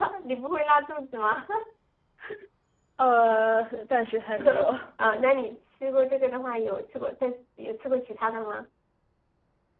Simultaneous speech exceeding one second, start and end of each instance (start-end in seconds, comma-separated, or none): none